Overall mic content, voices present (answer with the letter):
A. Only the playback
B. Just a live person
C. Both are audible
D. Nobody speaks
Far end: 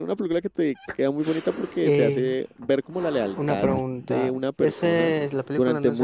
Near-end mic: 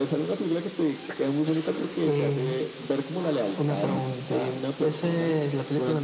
A